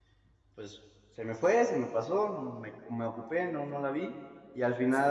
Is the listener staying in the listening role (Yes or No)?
Yes